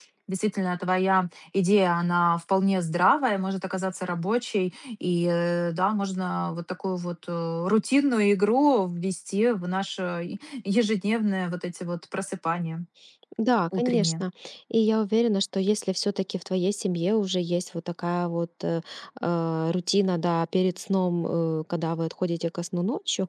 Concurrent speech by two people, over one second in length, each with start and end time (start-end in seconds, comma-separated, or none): none